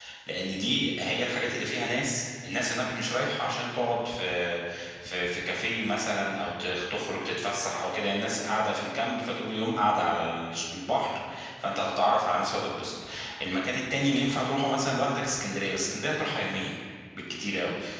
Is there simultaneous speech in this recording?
No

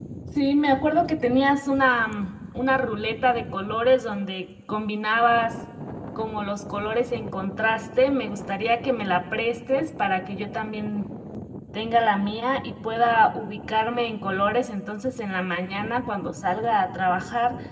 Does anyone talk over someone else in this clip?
No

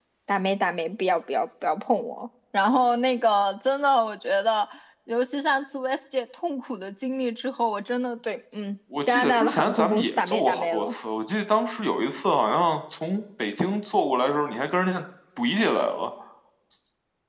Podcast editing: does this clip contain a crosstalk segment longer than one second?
Yes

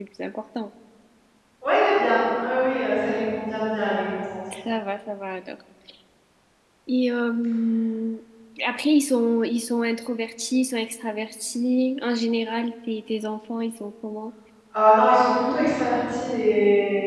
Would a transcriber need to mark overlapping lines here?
No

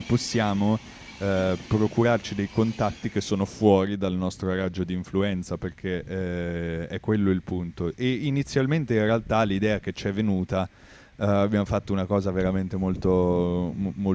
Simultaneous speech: No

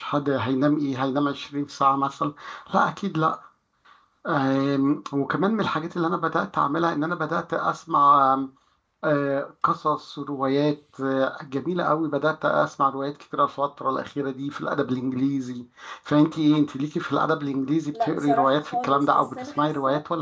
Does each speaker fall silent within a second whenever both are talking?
No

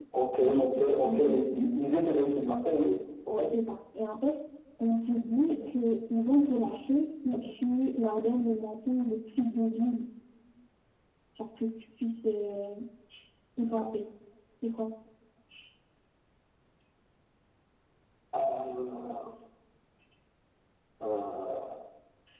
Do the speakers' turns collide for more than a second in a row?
Yes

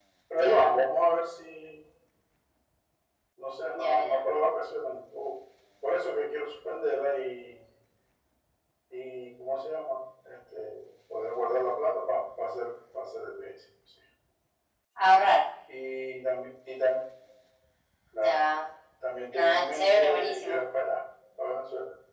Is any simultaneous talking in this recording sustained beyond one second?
Yes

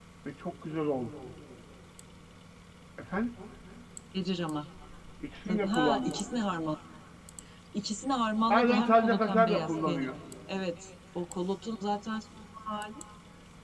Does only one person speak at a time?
No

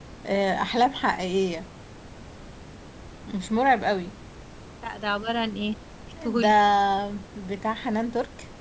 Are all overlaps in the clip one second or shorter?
Yes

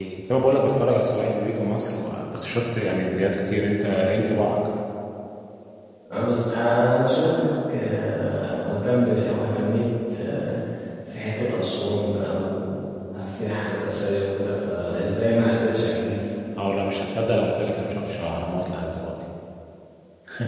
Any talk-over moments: No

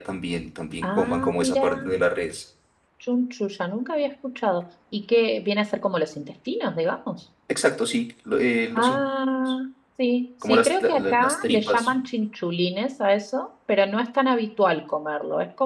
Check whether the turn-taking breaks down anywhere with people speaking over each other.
Yes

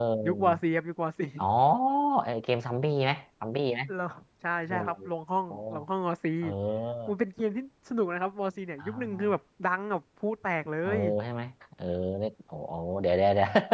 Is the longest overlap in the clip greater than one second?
No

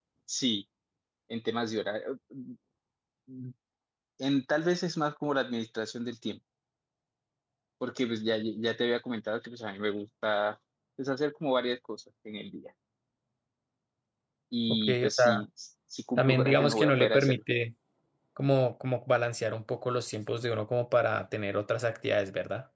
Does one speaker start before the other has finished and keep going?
Yes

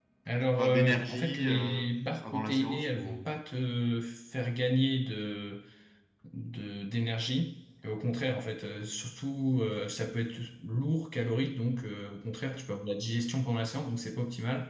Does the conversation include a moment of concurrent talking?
Yes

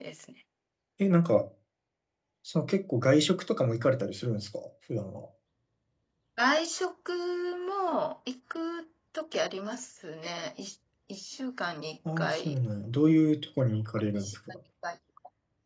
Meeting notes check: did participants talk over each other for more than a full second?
No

